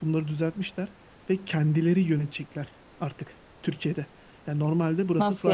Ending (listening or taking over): listening